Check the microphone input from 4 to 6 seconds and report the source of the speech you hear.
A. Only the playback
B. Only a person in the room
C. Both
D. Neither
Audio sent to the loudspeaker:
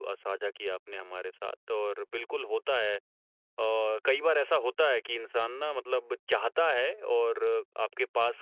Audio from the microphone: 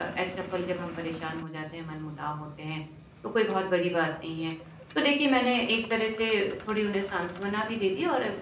B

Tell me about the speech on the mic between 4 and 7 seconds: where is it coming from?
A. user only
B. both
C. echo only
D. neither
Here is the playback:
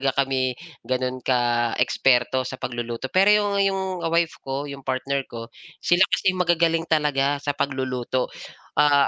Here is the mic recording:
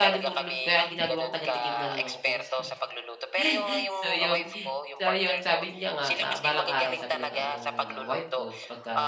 B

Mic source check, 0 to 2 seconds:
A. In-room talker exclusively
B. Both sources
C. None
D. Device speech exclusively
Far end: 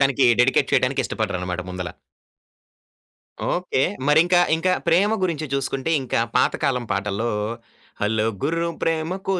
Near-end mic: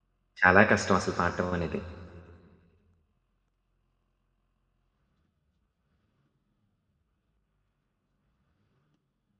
A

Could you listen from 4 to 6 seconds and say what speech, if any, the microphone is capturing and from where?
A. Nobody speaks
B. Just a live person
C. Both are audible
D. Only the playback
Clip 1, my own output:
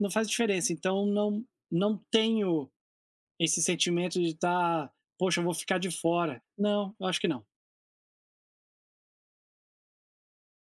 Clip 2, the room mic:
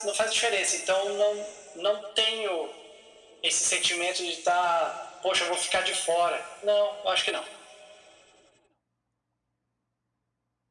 D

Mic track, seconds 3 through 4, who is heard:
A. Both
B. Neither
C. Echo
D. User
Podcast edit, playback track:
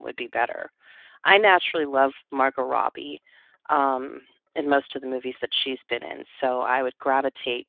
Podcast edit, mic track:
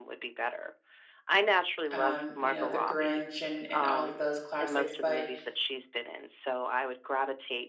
A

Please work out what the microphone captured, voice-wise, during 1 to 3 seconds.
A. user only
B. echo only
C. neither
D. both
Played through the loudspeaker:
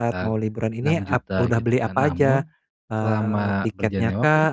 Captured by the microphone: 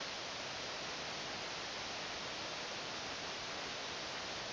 C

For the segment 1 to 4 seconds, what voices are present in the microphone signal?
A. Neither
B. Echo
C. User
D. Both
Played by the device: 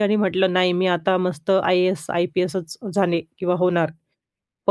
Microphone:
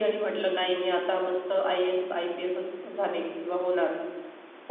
B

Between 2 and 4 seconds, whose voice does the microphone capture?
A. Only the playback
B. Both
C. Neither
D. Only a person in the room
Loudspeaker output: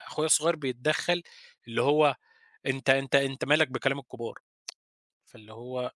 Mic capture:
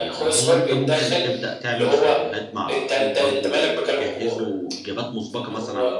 B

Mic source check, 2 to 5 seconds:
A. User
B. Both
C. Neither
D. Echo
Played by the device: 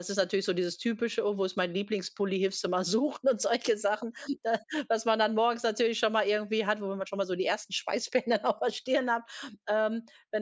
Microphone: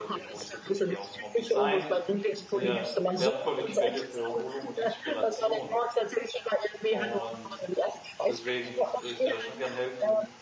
B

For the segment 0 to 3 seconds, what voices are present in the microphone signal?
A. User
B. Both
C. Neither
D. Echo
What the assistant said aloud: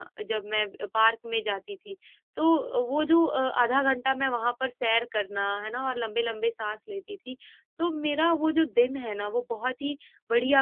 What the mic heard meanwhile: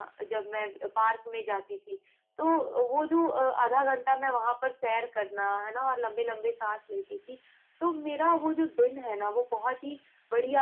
D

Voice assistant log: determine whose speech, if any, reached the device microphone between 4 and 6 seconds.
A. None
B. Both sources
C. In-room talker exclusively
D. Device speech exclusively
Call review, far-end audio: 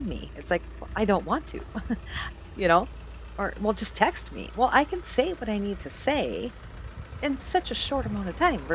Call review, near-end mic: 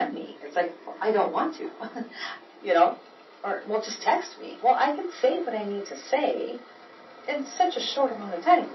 D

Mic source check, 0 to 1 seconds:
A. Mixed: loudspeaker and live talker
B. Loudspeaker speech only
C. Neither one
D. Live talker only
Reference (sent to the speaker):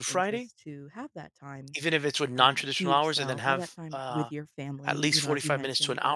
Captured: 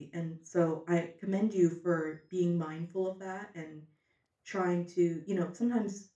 D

